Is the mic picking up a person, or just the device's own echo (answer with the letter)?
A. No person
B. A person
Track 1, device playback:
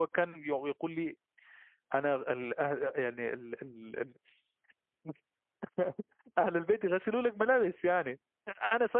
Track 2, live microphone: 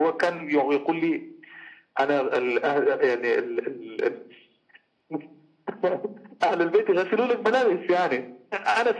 A